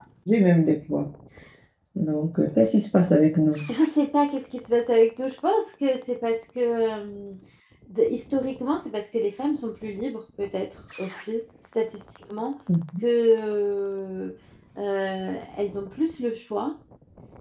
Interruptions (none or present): none